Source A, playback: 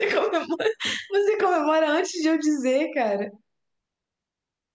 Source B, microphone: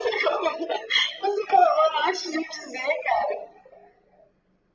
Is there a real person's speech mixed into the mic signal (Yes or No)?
No